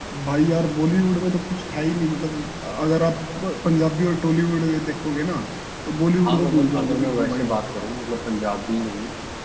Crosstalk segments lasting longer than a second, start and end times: 6.2-7.5

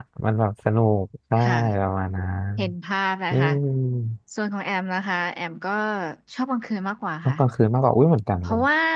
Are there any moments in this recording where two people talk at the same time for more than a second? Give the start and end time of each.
none

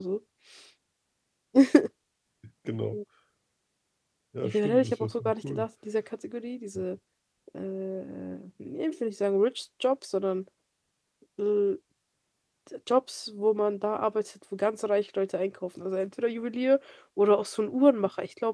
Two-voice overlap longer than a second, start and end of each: 4.4-5.7

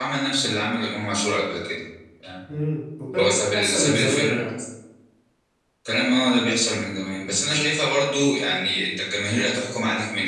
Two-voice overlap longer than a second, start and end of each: 3.2-4.5

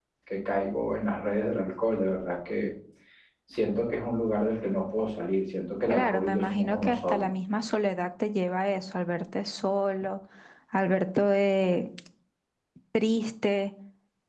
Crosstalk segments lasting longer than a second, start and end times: 5.9-7.2

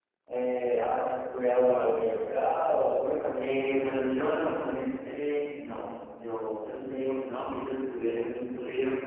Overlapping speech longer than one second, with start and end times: none

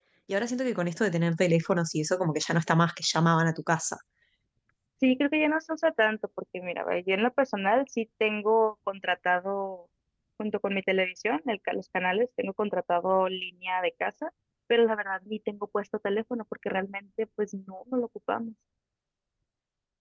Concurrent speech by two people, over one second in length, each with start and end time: none

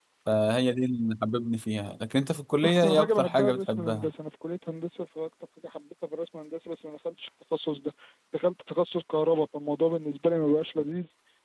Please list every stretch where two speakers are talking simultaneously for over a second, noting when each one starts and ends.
2.6-4.1

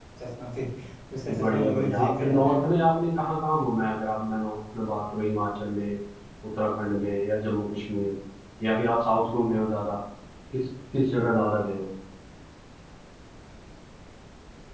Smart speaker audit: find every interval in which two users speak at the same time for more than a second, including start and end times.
1.4-2.6

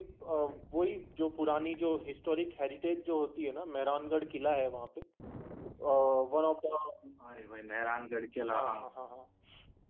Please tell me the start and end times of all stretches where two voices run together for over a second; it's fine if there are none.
none

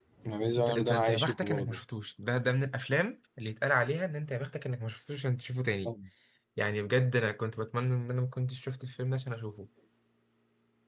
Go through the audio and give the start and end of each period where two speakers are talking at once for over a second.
0.6-1.8

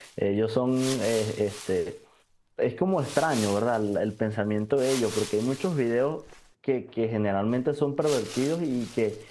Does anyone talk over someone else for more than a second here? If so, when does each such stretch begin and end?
none

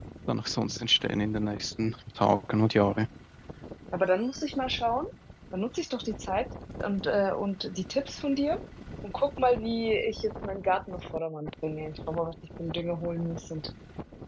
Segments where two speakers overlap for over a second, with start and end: none

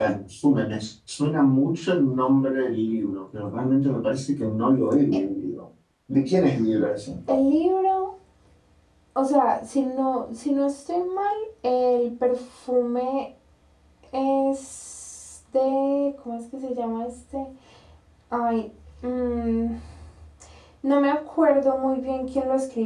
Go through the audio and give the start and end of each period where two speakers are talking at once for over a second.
none

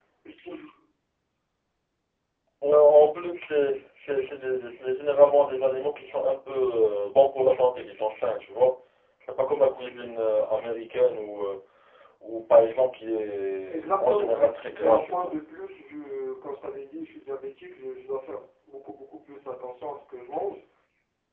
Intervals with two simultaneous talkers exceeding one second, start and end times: 13.7-15.3

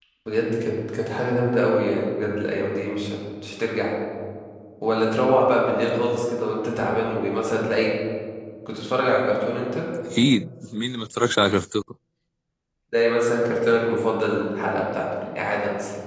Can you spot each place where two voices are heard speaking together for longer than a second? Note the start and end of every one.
none

